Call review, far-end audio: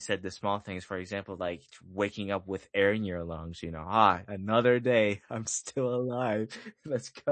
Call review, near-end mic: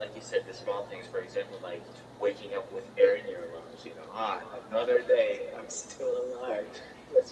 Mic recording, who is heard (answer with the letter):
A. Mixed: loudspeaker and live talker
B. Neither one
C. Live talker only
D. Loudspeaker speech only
D